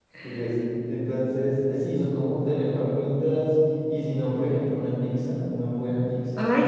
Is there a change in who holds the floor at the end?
Yes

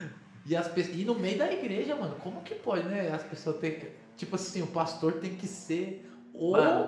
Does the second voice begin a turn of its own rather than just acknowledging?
No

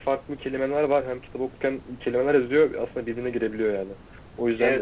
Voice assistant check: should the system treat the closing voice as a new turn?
No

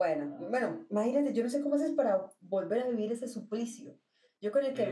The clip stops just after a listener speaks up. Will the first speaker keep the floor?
No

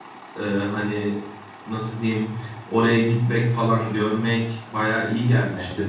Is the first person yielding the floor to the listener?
No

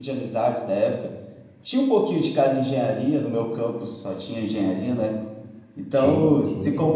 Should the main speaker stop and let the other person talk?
No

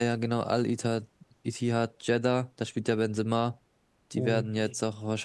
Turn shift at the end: No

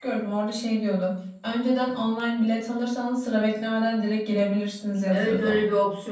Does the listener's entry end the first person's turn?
Yes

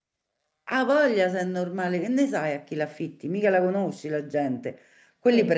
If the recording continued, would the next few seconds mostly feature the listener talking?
No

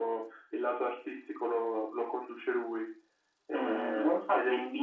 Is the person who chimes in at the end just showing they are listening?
No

